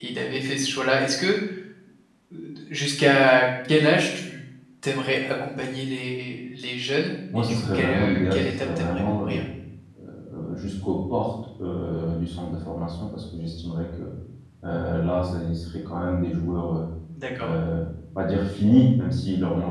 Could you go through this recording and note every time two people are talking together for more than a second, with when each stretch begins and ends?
7.4-9.4

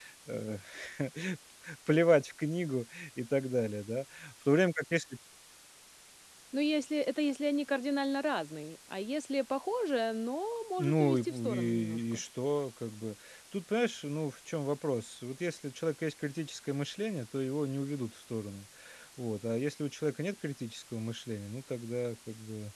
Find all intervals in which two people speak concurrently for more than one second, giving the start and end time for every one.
10.8-12.2

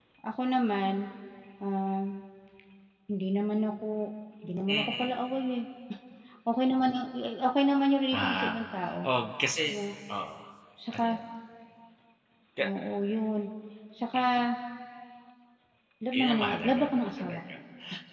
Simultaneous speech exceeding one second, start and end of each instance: 16.1-17.4

